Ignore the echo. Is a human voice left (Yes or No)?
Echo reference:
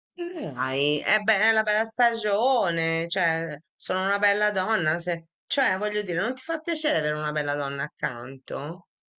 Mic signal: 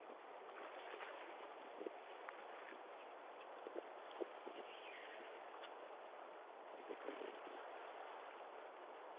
No